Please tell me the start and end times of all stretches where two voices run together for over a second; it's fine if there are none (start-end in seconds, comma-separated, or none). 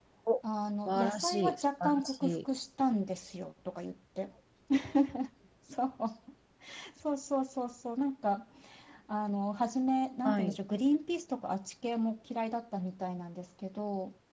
0.9-2.3